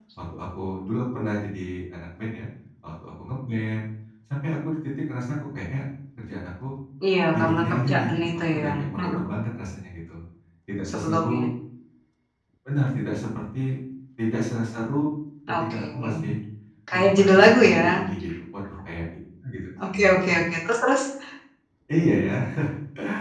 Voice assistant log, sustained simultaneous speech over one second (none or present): present